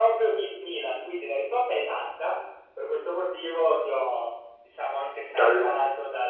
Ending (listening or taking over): listening